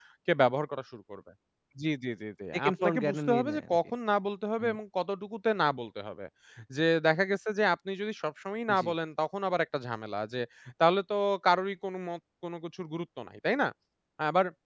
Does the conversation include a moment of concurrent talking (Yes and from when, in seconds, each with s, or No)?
Yes, from 2.5 s